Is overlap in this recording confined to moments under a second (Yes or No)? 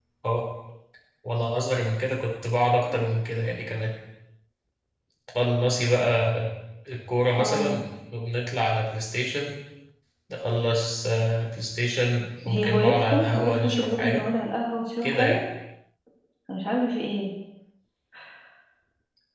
No